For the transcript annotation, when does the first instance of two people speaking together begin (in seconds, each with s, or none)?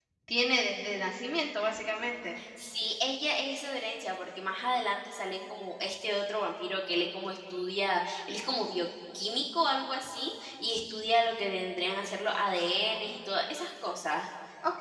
none